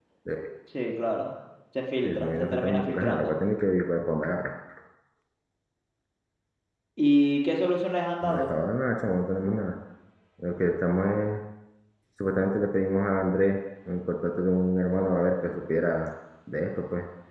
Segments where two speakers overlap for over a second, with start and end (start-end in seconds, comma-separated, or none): 2.0-3.4